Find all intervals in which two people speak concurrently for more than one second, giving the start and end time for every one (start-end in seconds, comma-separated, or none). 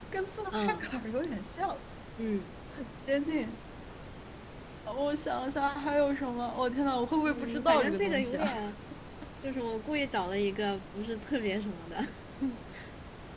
7.2-8.6